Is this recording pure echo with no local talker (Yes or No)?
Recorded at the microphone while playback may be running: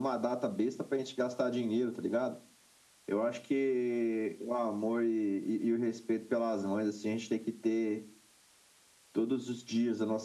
Yes